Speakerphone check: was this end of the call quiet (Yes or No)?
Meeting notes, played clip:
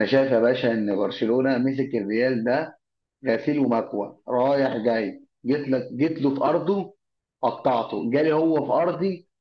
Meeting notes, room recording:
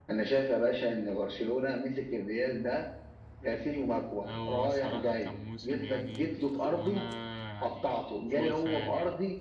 No